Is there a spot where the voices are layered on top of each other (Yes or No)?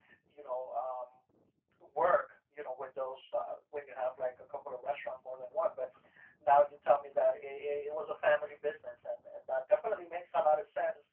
No